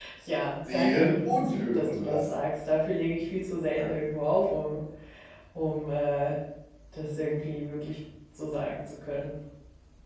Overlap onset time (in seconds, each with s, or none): 0.6 s